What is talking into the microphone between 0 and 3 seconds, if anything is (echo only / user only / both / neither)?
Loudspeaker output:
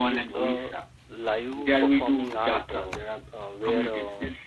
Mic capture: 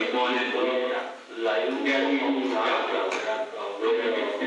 echo only